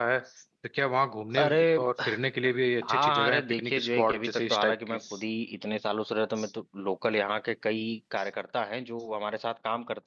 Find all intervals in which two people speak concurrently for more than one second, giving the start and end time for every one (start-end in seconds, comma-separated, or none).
2.8-5.0